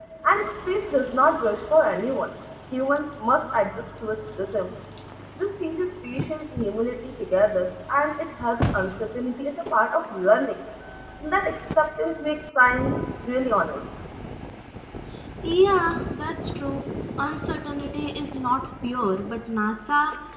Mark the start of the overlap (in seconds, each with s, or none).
none